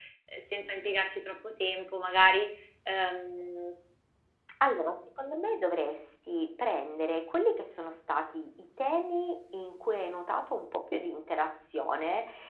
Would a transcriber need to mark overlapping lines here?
No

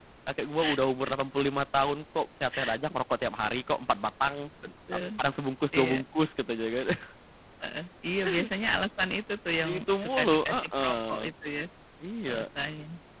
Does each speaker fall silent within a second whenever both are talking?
No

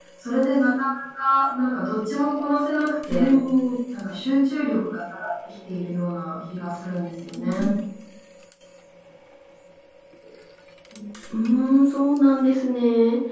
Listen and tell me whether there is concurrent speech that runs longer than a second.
No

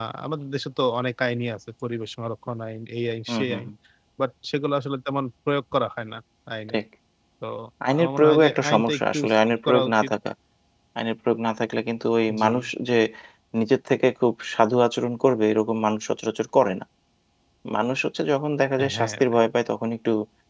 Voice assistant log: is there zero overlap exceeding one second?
No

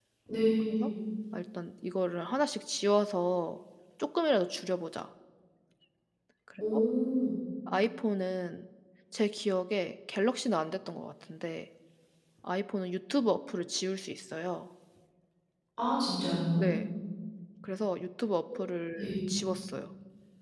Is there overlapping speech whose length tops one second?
No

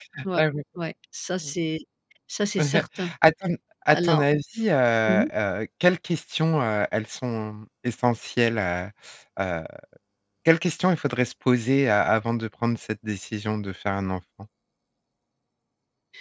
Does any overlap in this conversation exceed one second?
No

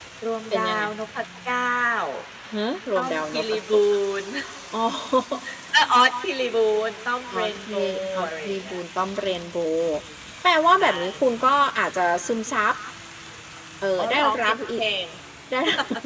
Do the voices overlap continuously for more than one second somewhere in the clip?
Yes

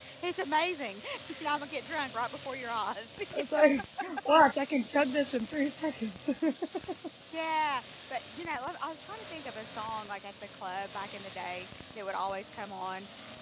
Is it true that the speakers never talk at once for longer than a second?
Yes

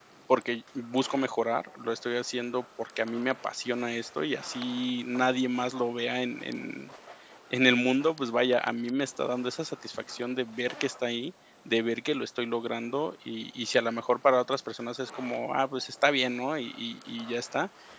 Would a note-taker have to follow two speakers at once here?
No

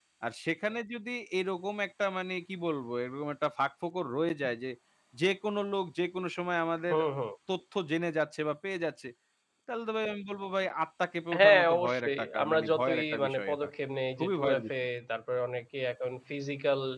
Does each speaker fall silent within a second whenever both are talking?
No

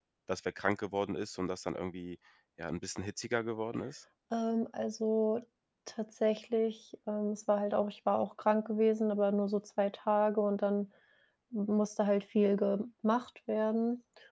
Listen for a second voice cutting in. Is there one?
No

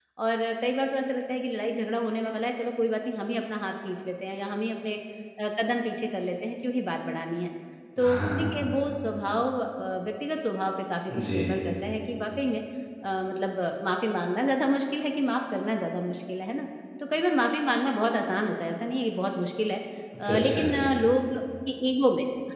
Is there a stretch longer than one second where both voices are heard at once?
No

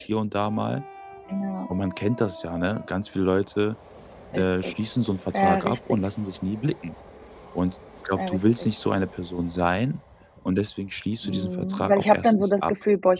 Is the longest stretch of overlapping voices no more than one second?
No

